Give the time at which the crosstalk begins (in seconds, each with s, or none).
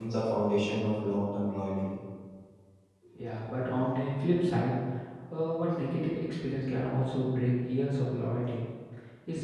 none